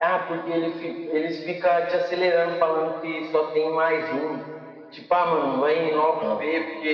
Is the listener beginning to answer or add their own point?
No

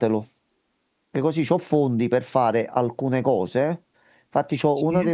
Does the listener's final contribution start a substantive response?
No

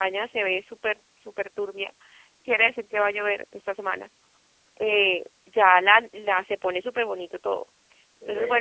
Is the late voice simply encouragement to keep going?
Yes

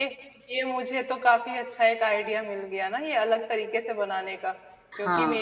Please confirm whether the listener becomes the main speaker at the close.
No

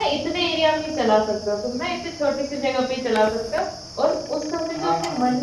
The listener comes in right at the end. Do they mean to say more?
No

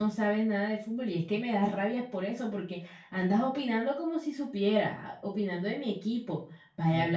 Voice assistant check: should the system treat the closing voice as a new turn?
No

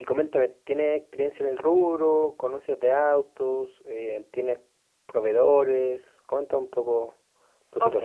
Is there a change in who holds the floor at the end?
Yes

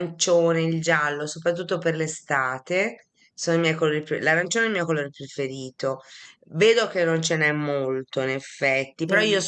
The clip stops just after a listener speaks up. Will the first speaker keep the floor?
Yes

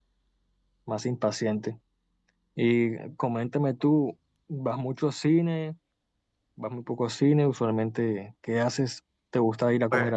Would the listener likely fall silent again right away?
Yes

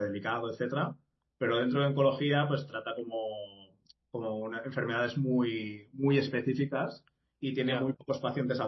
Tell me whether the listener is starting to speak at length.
No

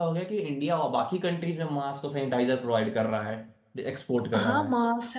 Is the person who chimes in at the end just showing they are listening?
No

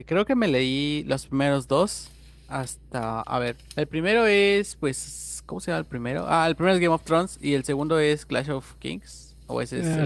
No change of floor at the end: No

